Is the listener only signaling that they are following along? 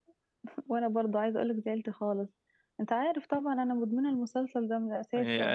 No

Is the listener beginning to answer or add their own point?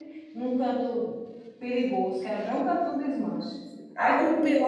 Yes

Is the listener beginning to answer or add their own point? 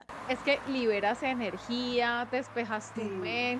No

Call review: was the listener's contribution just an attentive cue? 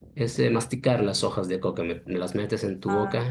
Yes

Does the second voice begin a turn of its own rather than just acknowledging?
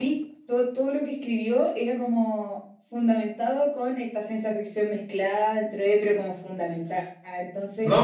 Yes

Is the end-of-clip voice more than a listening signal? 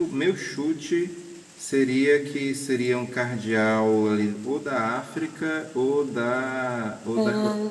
No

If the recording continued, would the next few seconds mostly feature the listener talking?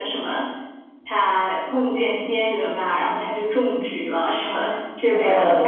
Yes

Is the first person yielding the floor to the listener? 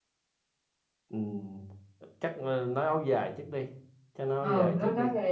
Yes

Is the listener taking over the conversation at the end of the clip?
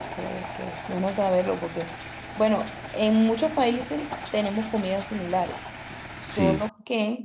No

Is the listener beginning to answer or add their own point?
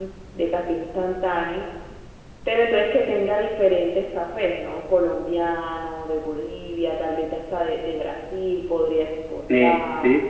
Yes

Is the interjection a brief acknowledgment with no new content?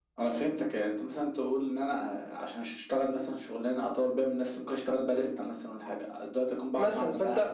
No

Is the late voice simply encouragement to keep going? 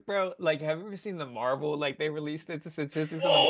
No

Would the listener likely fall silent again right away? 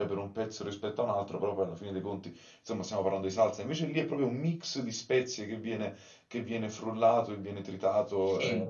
Yes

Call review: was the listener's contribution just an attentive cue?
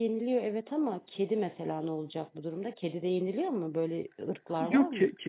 No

